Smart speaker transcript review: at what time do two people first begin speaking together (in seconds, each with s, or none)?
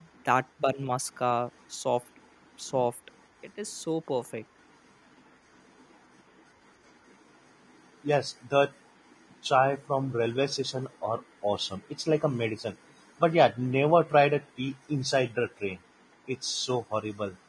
none